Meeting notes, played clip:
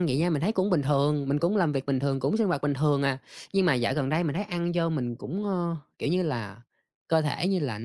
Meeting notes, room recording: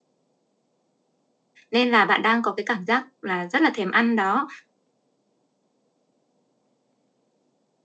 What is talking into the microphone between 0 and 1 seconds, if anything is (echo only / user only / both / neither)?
neither